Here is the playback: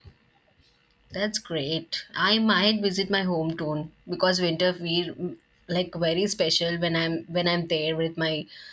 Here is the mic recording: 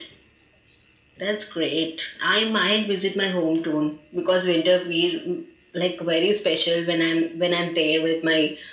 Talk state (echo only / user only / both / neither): echo only